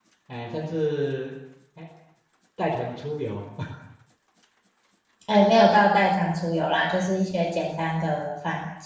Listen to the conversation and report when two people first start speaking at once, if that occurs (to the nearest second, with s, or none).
none